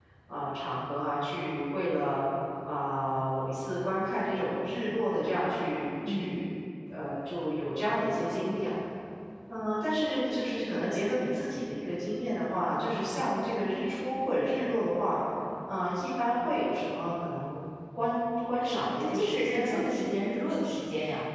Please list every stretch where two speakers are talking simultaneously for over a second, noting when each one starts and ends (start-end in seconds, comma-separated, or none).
18.6-19.8